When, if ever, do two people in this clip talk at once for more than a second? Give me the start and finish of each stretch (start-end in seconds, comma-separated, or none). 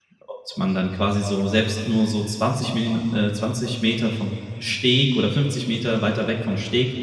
none